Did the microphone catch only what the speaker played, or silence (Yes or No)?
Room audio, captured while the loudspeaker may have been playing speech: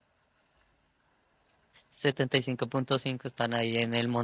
No